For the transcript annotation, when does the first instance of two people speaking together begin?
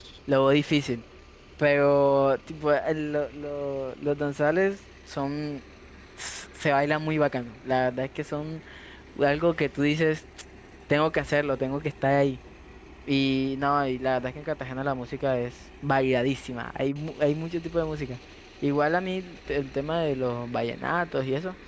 none

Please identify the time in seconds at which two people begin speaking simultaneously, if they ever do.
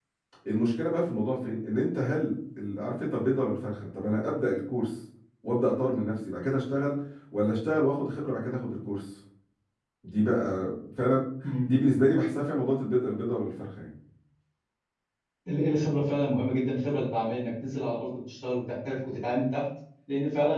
none

